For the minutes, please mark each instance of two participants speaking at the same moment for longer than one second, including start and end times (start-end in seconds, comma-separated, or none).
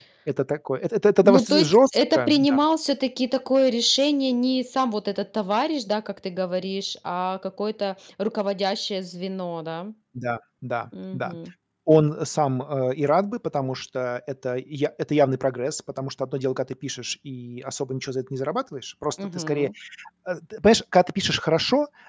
1.2-2.6